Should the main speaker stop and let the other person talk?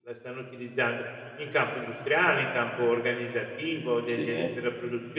No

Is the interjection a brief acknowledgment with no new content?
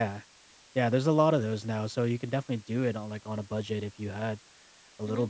No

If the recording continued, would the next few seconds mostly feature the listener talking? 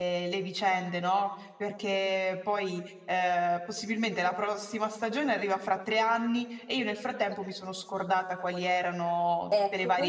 Yes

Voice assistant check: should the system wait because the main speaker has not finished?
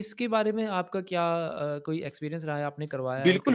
No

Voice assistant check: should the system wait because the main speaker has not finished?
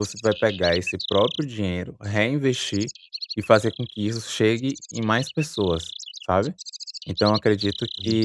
Yes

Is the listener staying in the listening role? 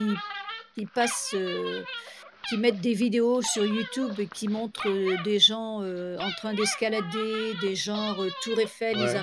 Yes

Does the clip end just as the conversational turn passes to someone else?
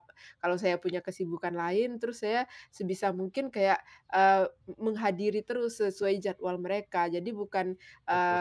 No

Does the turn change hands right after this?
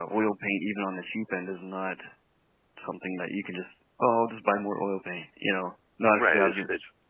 Yes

